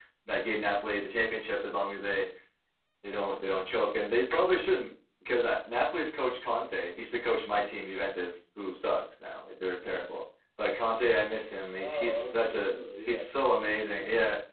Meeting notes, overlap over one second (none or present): present